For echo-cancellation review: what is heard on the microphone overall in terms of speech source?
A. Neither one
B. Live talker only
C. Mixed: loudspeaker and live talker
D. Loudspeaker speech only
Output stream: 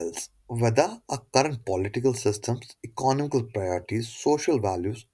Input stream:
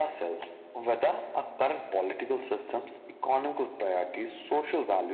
D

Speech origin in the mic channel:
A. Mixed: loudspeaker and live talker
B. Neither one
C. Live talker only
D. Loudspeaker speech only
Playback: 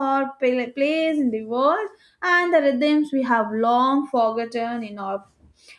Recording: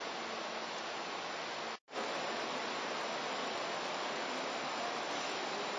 B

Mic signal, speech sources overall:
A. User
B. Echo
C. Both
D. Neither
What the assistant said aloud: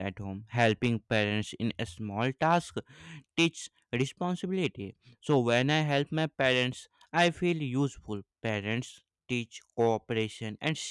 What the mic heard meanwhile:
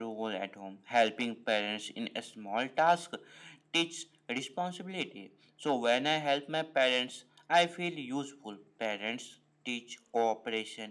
B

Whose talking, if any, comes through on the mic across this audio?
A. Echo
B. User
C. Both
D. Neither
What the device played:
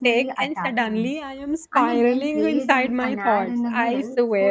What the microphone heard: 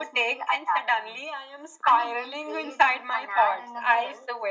A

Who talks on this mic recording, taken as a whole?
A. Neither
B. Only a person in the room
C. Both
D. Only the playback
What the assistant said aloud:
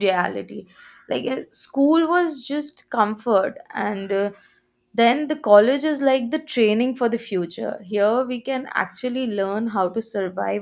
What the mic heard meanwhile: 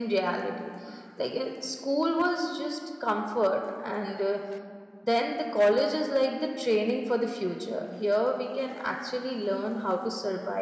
D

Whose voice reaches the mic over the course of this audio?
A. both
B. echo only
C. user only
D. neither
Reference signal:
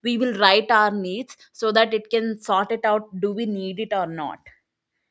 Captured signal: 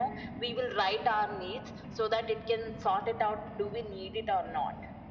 B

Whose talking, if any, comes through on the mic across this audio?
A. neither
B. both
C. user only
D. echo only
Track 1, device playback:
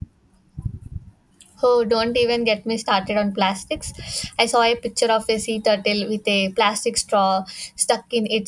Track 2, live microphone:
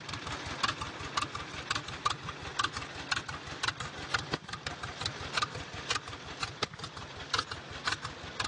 A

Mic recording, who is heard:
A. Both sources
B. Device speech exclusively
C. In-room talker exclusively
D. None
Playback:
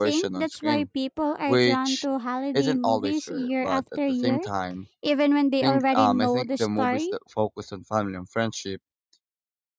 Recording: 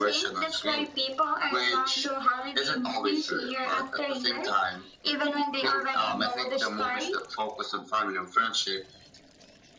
B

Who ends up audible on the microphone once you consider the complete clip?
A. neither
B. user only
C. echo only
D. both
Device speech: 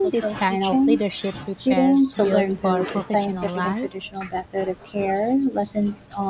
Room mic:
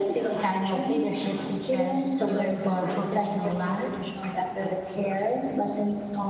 C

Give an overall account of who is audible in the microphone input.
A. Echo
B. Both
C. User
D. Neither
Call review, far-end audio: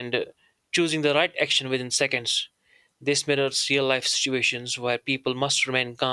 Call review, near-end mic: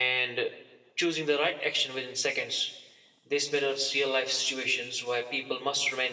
A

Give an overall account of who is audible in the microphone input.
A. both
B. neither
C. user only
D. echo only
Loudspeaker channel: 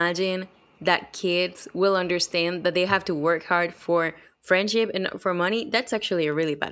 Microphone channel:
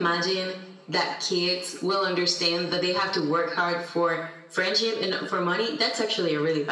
D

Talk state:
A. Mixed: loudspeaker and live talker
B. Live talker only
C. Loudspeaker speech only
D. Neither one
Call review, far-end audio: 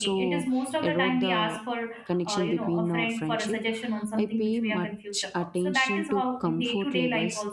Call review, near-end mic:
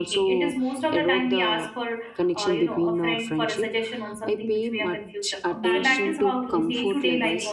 A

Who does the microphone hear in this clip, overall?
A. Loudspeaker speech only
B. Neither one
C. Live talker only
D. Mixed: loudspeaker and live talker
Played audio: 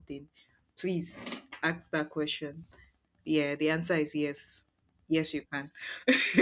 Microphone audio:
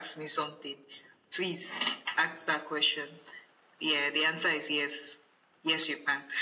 A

